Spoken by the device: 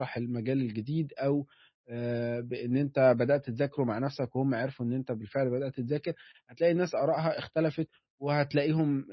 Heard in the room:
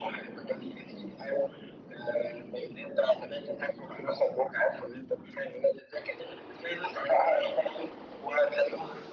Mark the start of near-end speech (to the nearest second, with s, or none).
none